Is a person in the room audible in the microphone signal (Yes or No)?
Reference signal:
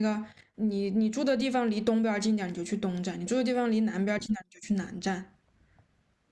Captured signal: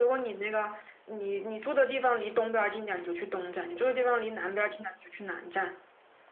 No